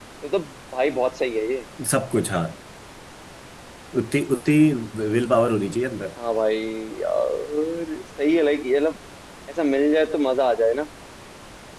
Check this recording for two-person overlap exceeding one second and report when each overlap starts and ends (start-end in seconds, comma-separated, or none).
none